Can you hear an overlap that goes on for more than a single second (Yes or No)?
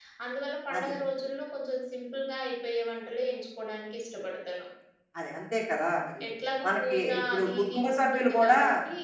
Yes